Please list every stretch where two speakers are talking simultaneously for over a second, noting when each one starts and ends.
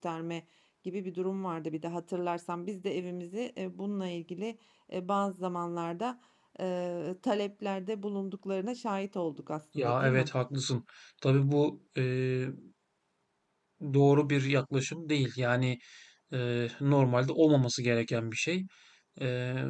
none

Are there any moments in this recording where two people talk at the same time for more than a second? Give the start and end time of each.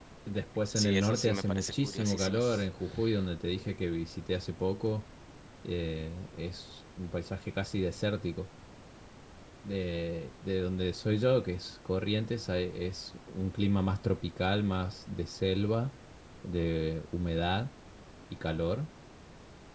0.8-2.4

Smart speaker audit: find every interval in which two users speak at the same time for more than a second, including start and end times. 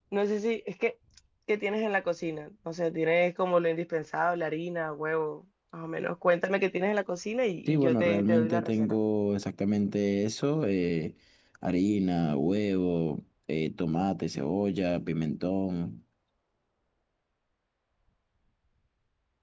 7.7-9.0

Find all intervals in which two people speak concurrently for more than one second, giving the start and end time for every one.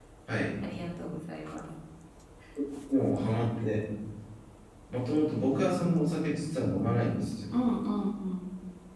none

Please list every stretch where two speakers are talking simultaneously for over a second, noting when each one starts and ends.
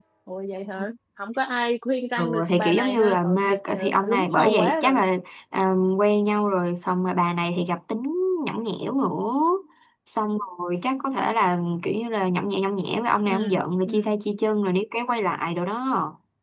2.2-5.0

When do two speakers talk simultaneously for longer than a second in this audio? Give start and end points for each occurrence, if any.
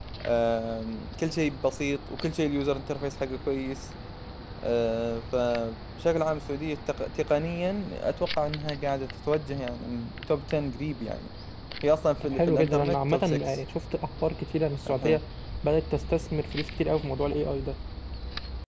12.2-13.6

